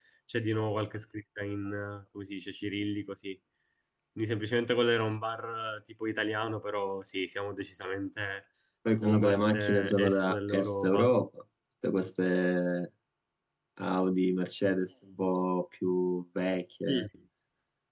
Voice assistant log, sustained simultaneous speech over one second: present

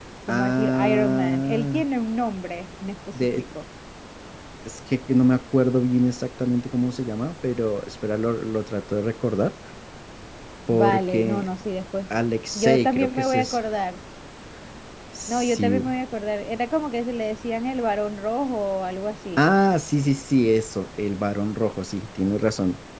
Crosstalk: present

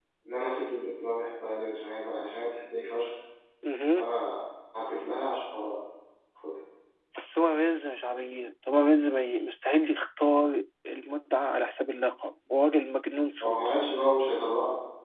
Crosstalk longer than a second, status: none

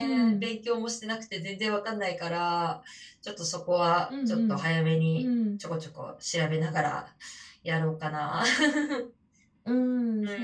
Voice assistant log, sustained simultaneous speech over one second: none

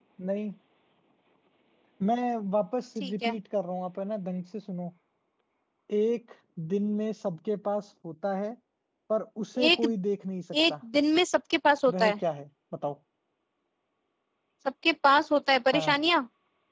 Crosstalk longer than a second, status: none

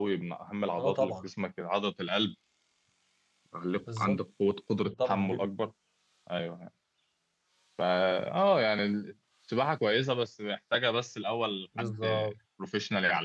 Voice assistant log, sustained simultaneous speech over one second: none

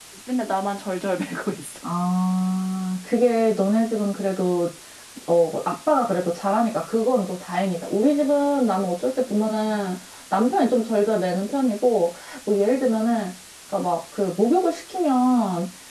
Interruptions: none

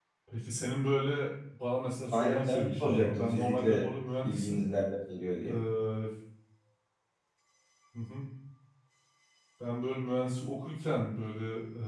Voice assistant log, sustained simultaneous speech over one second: present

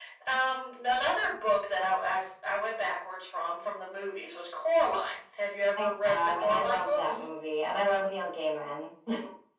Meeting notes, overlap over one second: present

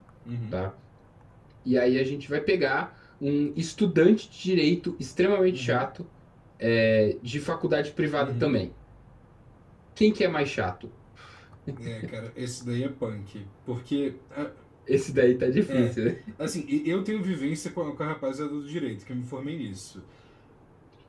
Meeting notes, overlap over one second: none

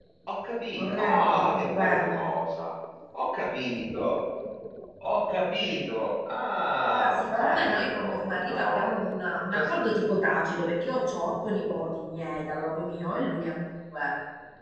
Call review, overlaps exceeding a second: present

